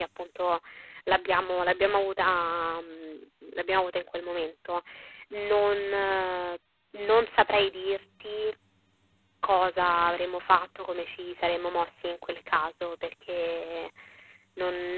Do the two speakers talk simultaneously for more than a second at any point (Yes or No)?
No